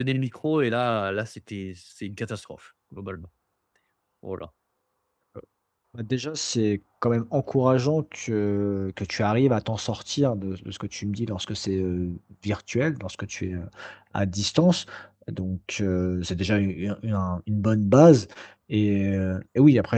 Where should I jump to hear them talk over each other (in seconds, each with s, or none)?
none